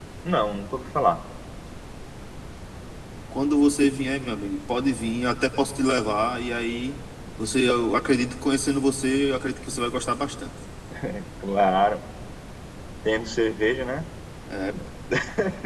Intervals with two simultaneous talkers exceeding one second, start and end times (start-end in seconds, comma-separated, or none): none